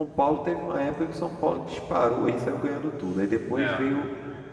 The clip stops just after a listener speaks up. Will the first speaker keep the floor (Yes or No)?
Yes